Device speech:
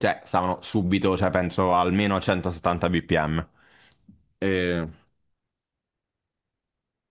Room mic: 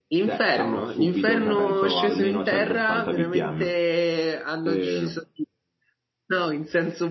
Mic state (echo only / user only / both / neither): both